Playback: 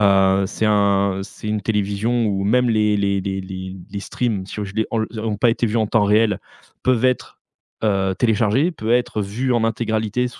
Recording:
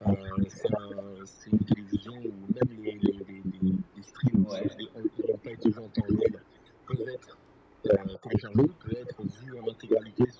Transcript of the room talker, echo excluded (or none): Ouais,